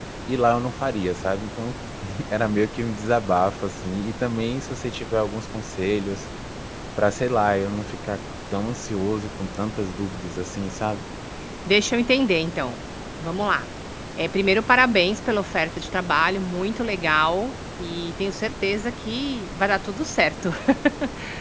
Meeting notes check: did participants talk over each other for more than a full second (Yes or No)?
No